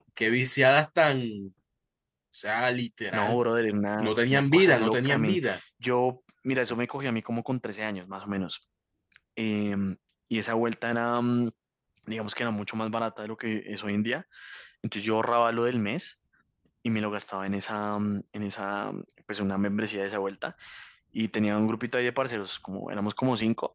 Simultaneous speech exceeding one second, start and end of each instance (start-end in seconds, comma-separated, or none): 4.0-5.4